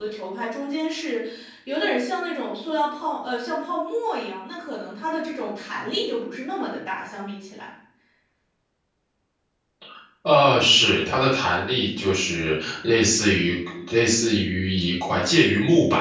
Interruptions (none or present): none